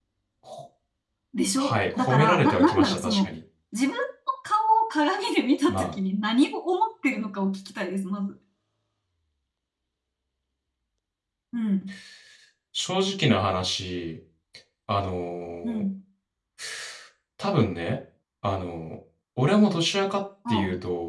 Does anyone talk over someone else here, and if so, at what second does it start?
1.6 s

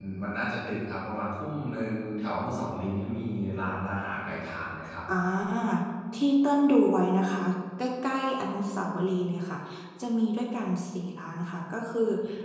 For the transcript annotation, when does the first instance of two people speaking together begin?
none

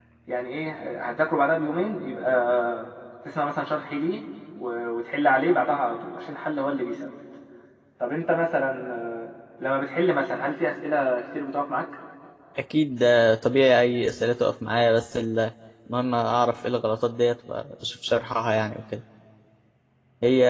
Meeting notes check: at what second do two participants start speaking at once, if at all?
none

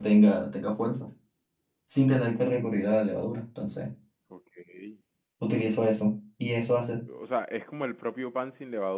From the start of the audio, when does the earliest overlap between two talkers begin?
none

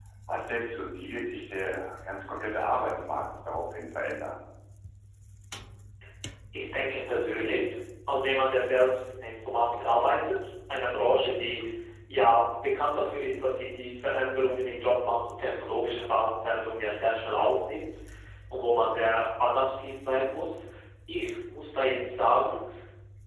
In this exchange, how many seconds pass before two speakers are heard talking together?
none

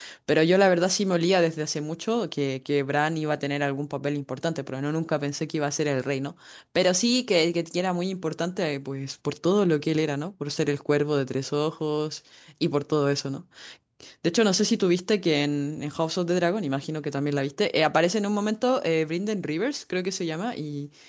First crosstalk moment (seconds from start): none

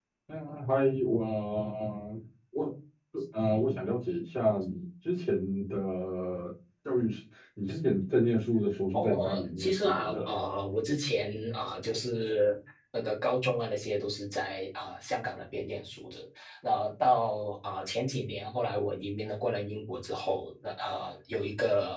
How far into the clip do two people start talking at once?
8.9 s

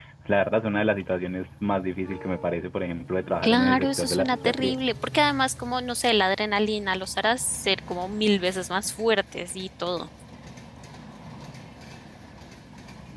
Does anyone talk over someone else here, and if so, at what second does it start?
3.4 s

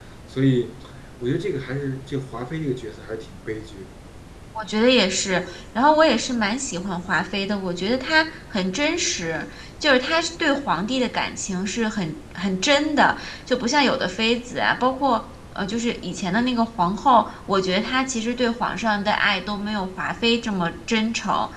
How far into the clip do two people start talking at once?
none

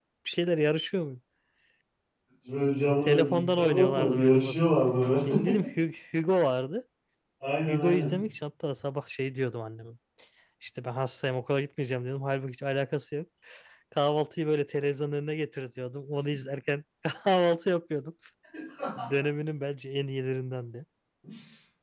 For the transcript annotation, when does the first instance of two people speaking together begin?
3.1 s

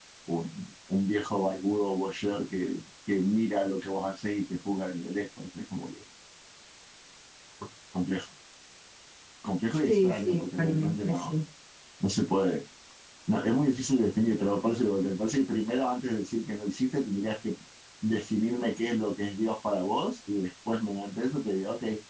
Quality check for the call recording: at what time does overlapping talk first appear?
9.9 s

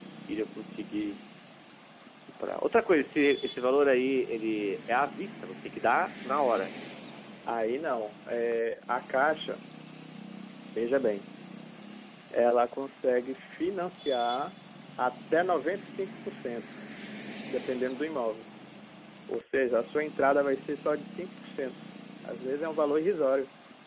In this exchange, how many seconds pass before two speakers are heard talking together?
none

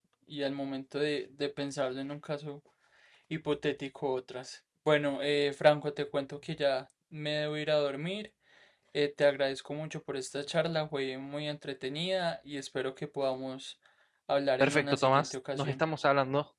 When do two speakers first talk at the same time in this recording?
14.6 s

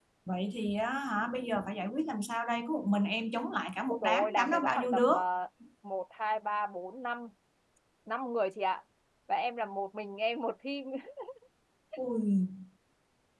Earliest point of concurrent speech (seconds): 3.9 s

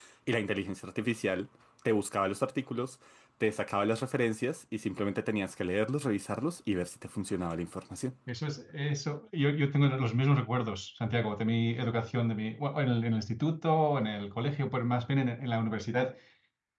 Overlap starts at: none

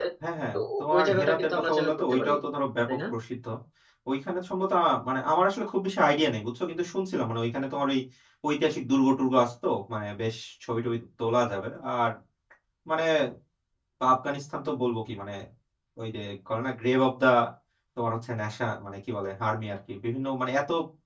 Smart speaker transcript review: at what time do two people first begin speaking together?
0.5 s

